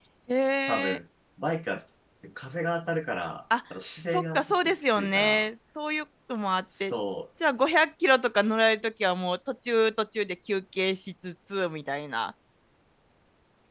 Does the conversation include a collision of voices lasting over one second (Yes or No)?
Yes